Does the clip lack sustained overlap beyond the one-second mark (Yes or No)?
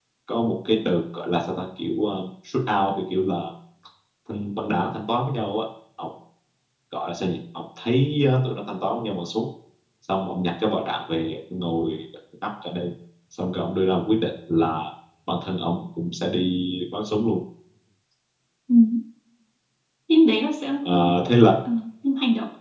Yes